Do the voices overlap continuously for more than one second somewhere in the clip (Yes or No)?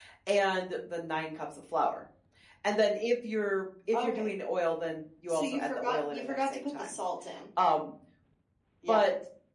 Yes